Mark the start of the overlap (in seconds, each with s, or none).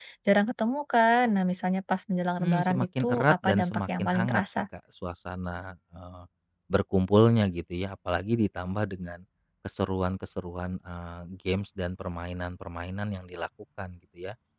2.4 s